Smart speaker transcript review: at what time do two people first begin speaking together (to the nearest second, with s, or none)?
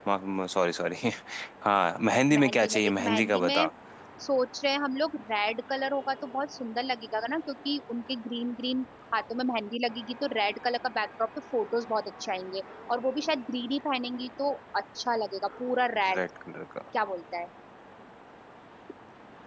2 s